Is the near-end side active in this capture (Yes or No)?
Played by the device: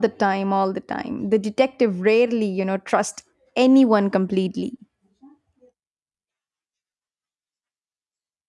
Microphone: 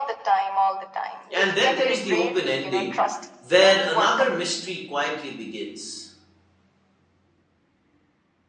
Yes